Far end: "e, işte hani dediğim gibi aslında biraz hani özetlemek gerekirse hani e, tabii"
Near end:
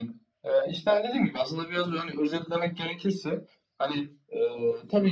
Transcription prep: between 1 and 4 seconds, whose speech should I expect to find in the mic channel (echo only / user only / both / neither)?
echo only